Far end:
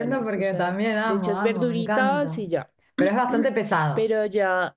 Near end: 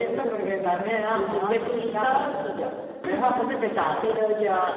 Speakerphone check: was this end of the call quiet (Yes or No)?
Yes